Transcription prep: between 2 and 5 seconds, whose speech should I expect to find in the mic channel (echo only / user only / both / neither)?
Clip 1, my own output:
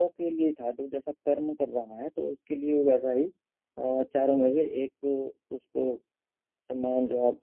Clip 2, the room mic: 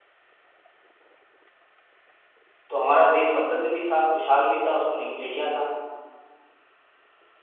user only